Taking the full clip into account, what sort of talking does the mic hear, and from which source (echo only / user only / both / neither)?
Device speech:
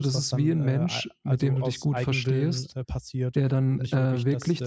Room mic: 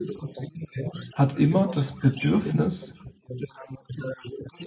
both